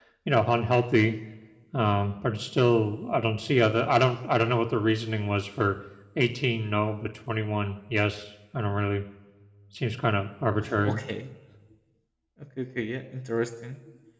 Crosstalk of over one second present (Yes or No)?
No